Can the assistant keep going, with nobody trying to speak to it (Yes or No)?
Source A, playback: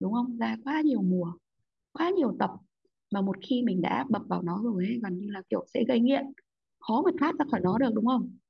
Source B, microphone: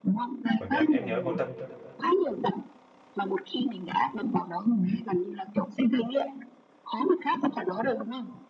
No